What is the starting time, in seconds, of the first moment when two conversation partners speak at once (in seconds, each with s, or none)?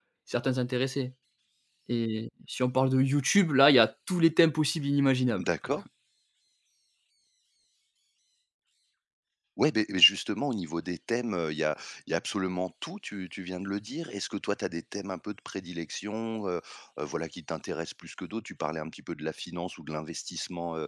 none